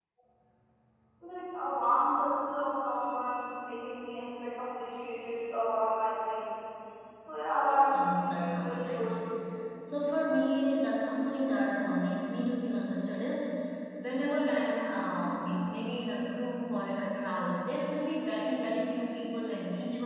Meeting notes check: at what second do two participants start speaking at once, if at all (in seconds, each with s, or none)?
7.9 s